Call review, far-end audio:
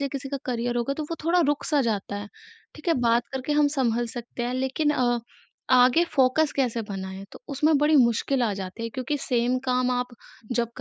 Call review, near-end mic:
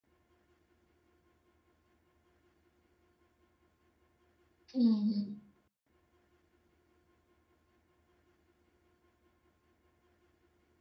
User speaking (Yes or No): Yes